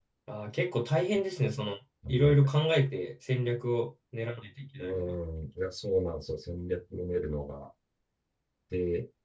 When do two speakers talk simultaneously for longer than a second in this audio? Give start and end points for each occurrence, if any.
none

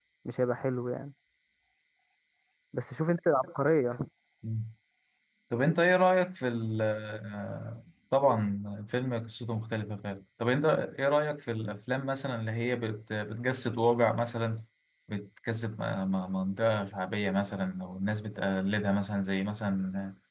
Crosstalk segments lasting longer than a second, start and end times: none

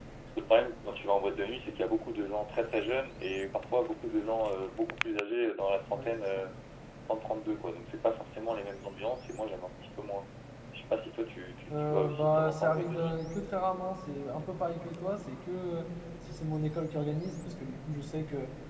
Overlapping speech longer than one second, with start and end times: 11.7-13.2

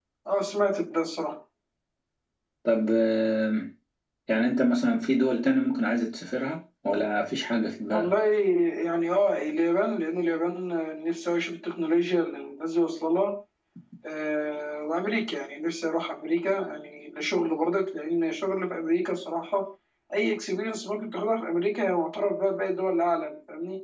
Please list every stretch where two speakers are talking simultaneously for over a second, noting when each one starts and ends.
none

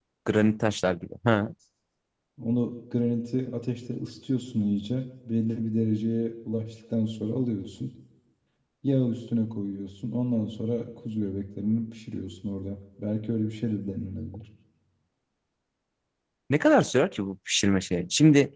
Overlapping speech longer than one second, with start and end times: none

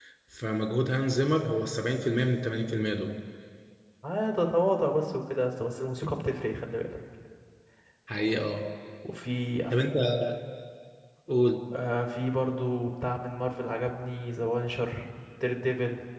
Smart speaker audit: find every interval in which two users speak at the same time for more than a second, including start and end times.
none

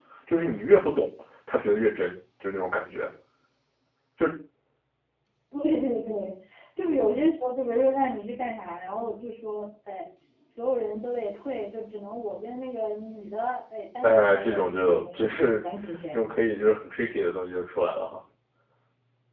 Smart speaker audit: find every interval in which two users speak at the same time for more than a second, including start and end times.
14.0-15.6

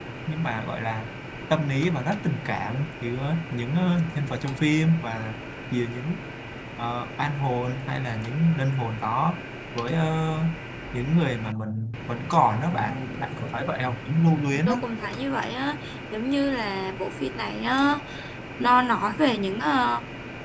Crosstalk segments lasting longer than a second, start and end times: none

